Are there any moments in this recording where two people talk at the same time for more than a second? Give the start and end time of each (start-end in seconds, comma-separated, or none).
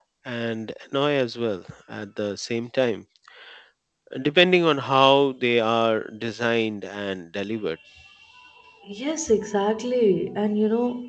none